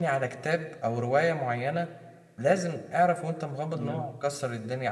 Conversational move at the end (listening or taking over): listening